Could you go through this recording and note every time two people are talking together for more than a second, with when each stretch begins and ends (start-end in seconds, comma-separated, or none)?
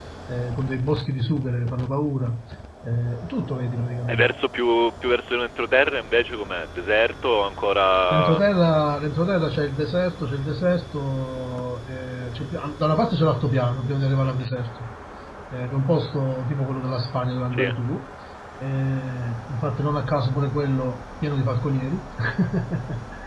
none